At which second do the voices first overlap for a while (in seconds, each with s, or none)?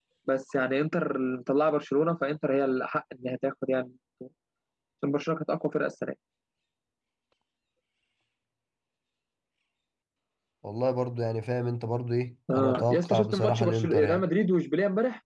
12.5 s